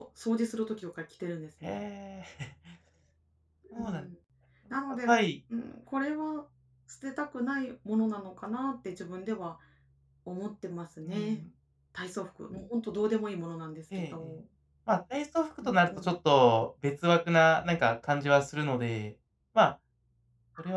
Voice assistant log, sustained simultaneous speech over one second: none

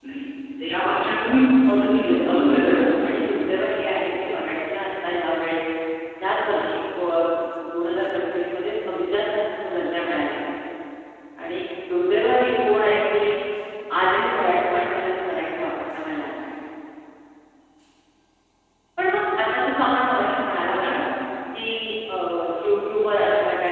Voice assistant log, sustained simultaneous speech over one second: present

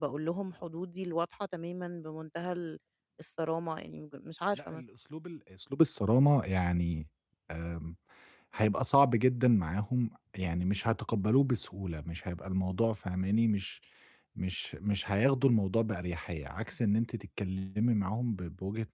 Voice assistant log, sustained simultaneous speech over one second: none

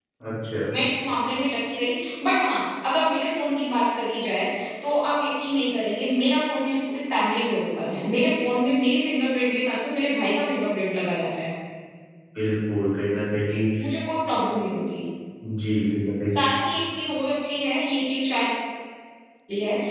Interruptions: none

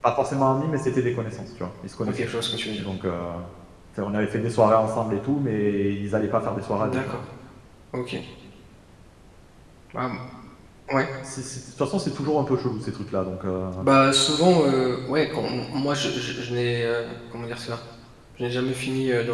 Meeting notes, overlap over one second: none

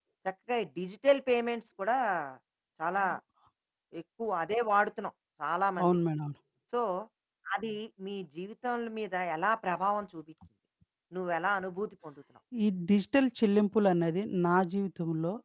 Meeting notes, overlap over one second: none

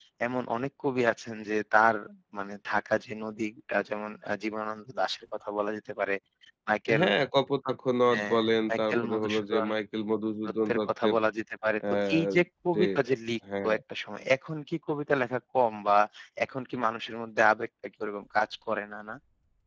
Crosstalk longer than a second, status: present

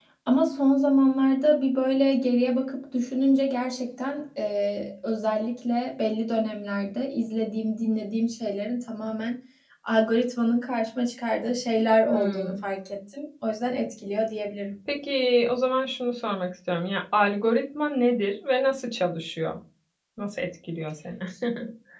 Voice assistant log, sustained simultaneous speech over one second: none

